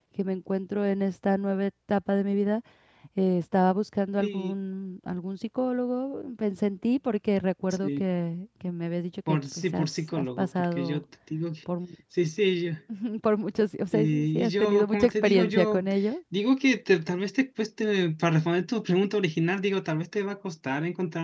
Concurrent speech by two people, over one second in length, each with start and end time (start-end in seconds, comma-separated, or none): 9.3-11.0, 13.9-15.8